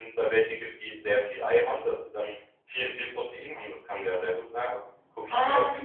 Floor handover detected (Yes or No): Yes